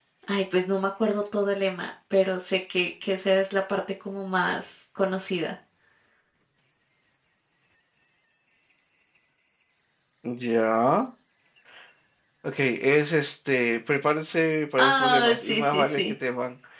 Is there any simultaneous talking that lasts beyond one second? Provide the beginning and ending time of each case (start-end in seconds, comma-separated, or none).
14.8-16.0